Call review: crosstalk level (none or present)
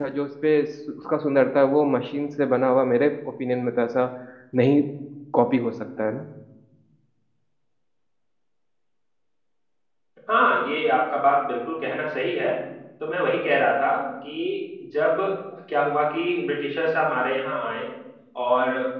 none